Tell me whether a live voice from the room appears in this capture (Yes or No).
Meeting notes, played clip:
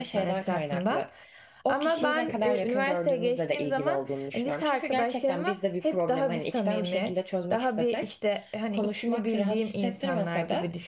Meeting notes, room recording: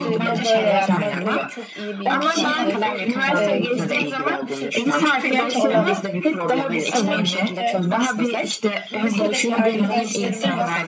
Yes